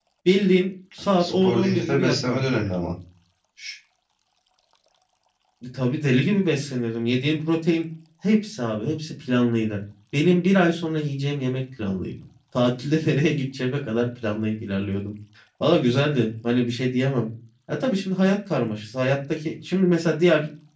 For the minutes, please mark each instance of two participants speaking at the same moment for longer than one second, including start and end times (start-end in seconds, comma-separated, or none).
1.2-2.4